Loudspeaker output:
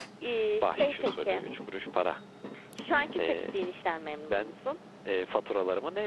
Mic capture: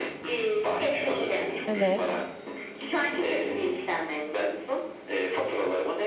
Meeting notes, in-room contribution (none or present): present